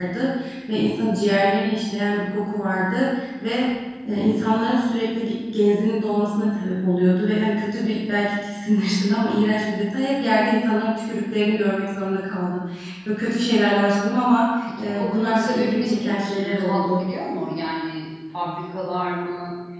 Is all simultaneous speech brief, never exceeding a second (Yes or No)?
No